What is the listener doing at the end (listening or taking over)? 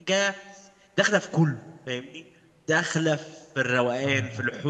listening